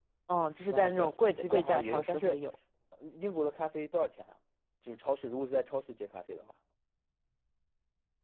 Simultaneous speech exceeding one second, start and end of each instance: 0.7-2.4

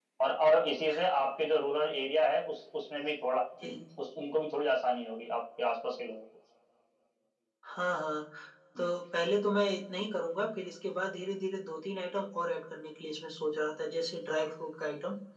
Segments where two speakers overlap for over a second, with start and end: none

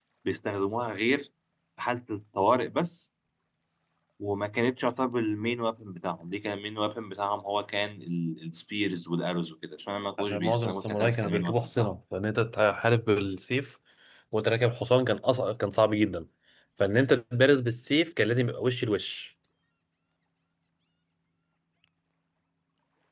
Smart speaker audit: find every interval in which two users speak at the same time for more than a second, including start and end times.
10.2-11.9

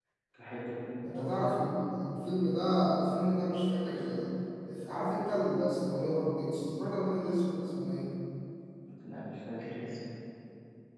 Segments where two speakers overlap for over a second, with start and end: none

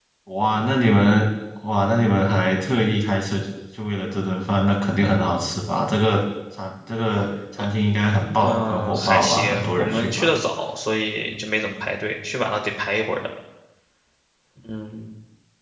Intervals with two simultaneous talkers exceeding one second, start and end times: 8.4-10.3

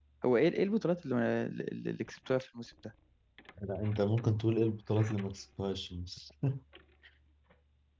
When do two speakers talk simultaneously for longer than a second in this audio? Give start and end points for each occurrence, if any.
none

